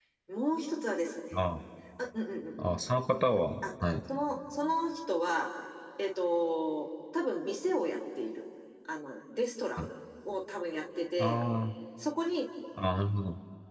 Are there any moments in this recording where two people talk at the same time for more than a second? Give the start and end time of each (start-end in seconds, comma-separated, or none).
none